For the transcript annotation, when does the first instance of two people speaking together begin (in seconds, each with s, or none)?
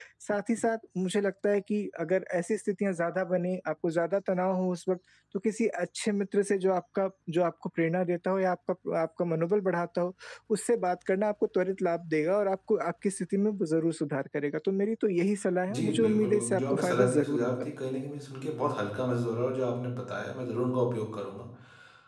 15.7 s